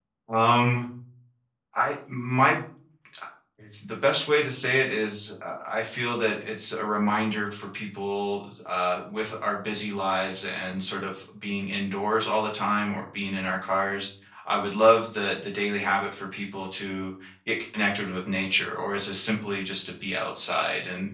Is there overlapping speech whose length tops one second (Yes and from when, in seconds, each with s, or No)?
No